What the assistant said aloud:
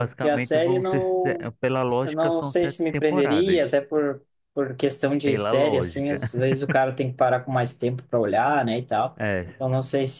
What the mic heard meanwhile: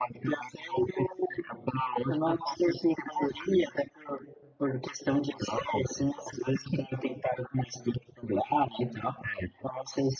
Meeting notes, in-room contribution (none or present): none